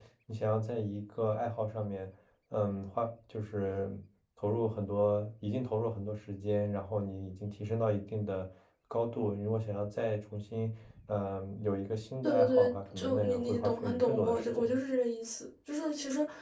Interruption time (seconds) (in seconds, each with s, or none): 12.2 s